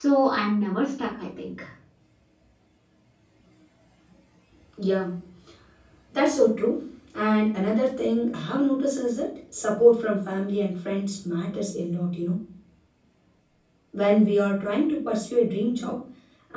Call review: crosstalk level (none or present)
none